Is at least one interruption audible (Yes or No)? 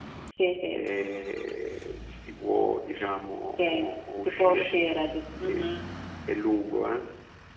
Yes